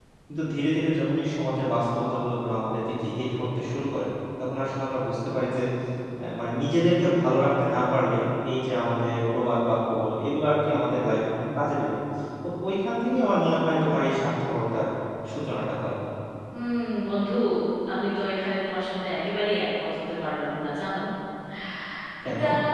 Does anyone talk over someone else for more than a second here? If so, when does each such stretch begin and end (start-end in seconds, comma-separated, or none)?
none